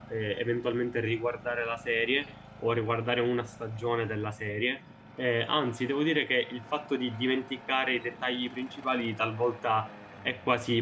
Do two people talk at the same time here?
No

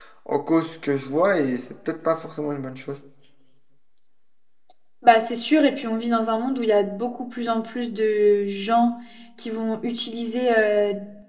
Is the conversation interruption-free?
Yes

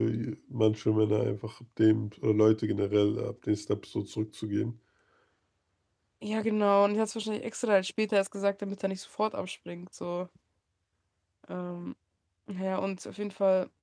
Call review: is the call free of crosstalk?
Yes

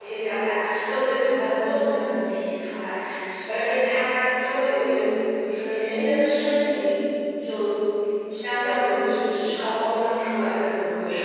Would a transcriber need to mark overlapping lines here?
No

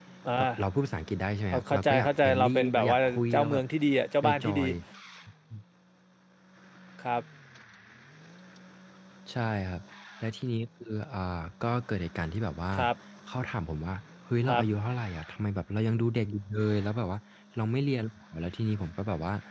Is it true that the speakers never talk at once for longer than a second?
No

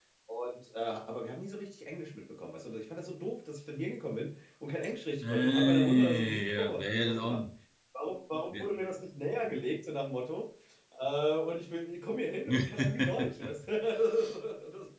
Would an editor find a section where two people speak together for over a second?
Yes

